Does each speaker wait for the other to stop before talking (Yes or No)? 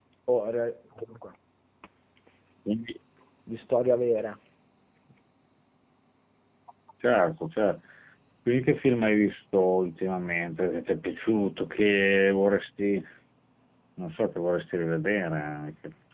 Yes